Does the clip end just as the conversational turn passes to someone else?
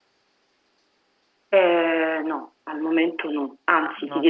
No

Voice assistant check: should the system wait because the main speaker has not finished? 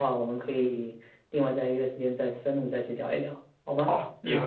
No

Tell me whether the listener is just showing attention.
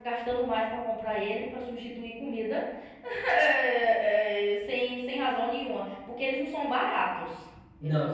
No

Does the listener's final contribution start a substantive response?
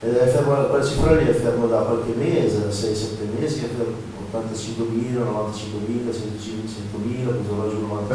Yes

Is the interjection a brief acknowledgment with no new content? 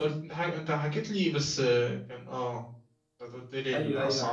No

